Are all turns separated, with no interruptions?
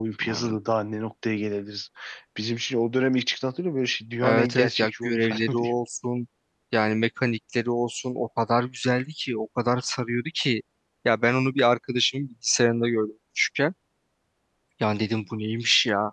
No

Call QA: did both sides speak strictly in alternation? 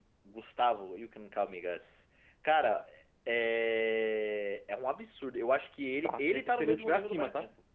No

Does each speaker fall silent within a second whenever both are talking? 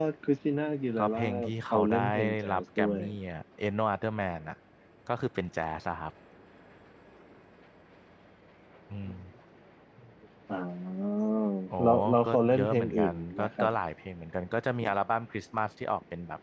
No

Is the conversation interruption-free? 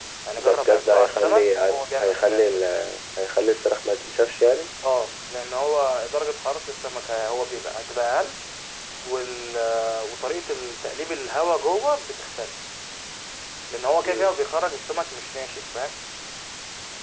No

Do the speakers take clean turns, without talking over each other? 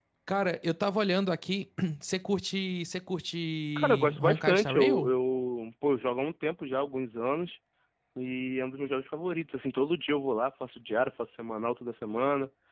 No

